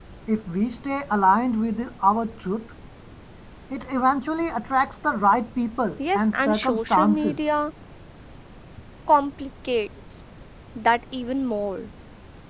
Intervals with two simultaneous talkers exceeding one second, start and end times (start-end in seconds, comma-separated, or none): 6.2-7.4